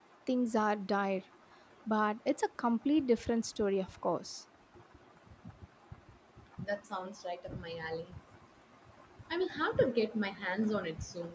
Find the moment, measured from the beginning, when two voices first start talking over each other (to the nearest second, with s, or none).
none